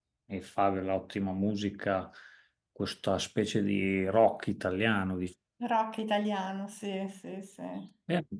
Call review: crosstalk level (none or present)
none